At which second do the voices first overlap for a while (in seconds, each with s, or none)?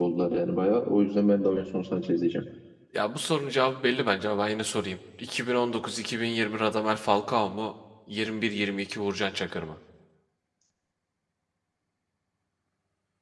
none